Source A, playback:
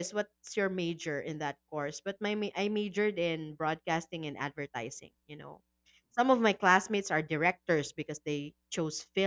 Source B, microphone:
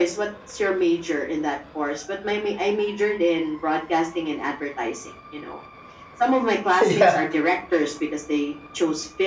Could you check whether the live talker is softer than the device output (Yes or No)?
No